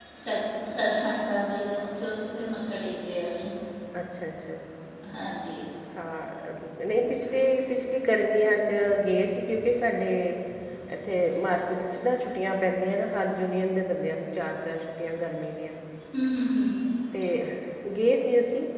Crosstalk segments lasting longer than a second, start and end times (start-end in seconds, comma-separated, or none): none